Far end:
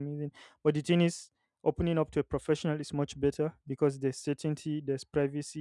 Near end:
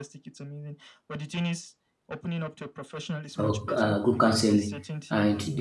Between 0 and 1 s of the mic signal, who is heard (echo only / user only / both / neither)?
echo only